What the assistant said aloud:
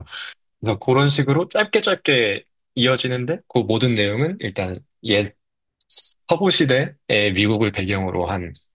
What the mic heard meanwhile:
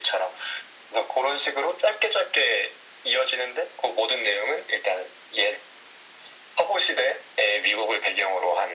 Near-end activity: none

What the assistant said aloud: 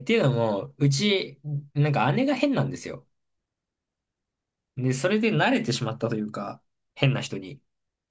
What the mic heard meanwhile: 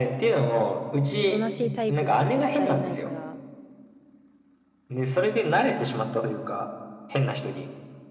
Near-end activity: present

